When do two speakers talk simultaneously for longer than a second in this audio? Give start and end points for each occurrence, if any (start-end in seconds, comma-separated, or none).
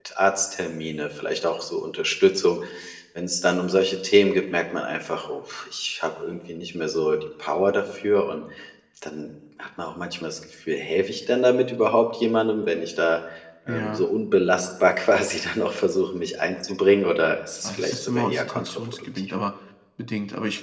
17.6-19.3